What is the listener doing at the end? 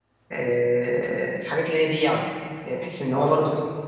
listening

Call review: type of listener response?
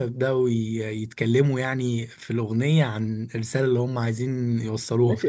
taking over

